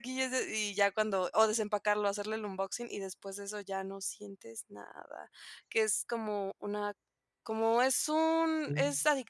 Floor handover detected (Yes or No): No